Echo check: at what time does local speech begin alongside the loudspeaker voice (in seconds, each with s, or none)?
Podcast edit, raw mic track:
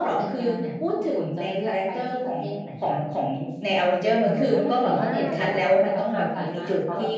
4.2 s